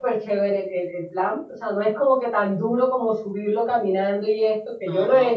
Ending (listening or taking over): listening